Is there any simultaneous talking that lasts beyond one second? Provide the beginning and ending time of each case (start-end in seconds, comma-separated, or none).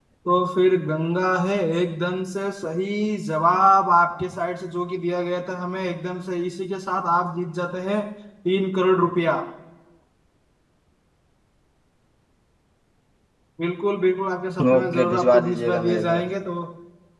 14.7-16.2